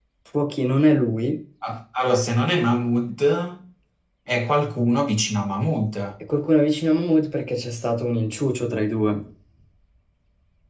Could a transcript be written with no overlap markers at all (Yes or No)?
Yes